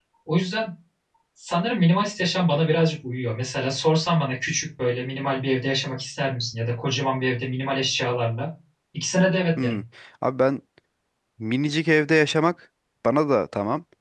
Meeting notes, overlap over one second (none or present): none